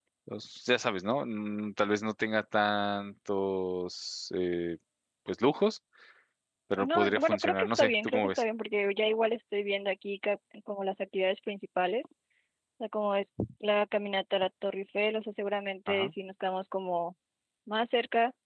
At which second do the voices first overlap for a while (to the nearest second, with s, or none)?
7 s